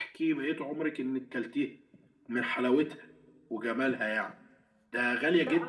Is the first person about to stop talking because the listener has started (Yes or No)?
Yes